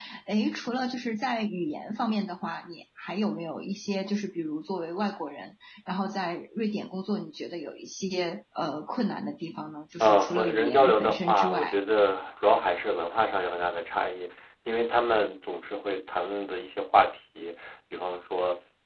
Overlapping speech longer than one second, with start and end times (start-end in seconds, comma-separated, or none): 10.0-11.8